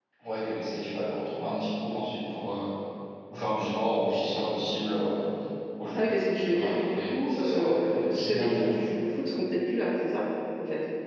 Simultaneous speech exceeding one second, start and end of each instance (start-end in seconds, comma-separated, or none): 6.0-8.7